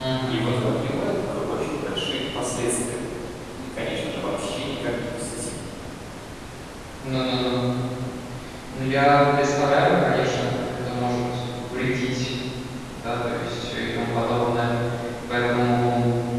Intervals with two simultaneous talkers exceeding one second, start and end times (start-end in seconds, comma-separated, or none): none